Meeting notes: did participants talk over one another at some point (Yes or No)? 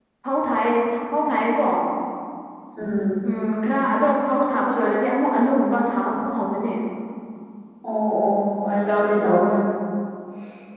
No